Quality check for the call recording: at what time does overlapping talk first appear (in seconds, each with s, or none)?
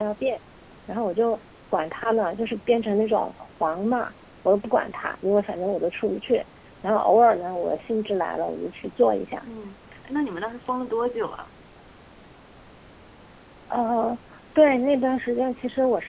none